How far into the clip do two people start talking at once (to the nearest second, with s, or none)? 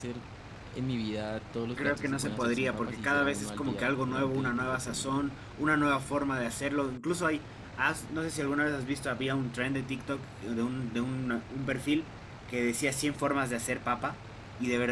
2 s